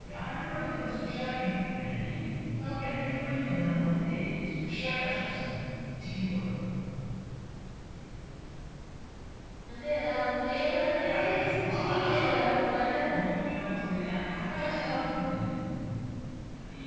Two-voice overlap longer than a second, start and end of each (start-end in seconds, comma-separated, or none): 11.1-12.7